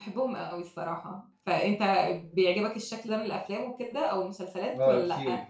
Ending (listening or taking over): taking over